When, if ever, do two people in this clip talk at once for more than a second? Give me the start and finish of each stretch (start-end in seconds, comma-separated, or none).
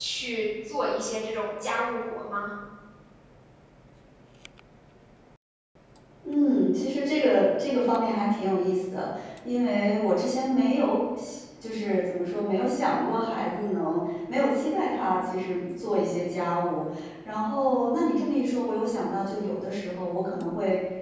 none